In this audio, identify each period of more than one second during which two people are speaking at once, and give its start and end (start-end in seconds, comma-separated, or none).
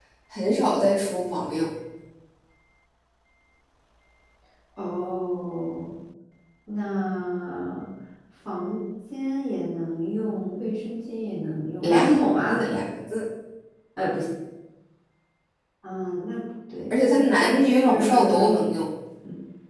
16.9-18.6